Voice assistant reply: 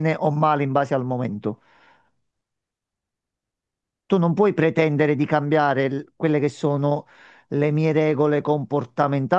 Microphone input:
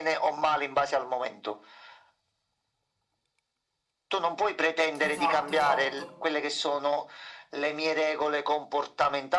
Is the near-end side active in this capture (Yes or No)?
Yes